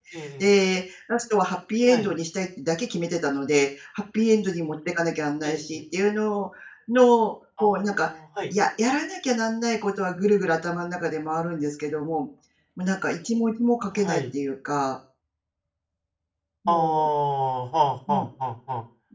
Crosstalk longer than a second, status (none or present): none